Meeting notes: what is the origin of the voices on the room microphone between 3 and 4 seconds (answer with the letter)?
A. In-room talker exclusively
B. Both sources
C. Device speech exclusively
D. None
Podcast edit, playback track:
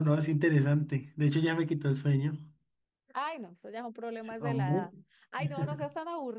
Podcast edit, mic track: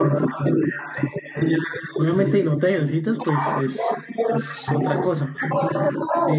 B